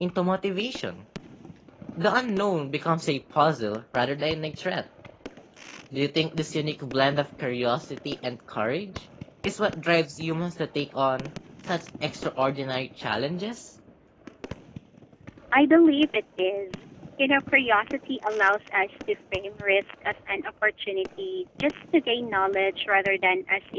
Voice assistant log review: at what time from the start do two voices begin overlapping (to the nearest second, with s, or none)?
none